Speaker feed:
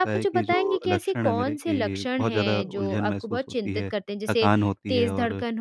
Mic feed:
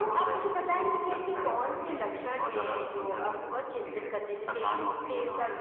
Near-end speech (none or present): none